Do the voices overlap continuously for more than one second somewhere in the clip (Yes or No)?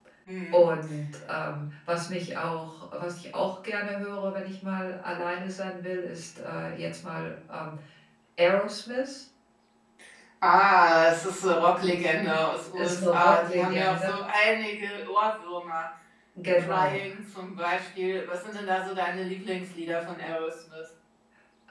Yes